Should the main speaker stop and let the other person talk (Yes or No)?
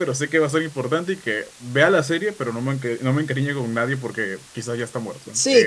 Yes